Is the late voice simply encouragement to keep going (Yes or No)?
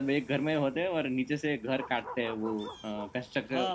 No